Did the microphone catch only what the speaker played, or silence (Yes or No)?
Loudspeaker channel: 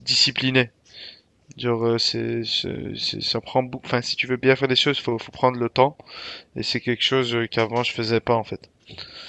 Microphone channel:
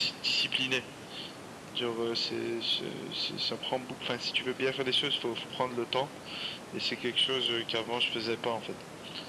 Yes